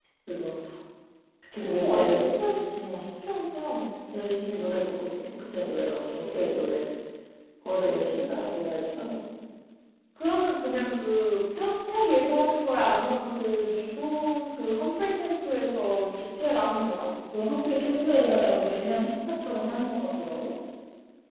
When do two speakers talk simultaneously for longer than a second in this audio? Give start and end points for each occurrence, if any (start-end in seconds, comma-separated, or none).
8.0-9.2